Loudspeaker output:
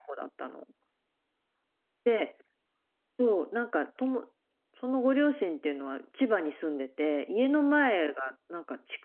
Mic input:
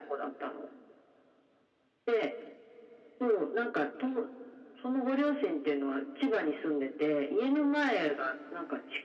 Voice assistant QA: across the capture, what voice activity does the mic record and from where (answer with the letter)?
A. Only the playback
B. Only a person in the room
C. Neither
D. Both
A